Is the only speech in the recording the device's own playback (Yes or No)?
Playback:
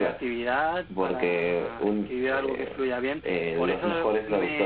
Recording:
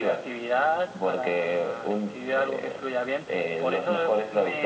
Yes